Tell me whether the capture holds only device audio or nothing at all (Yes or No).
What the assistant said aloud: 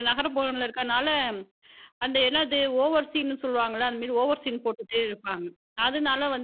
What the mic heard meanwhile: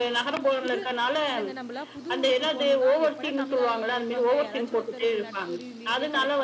No